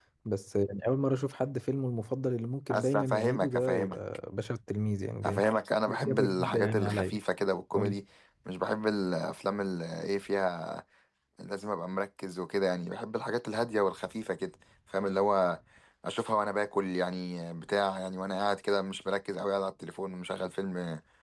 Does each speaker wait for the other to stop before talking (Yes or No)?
No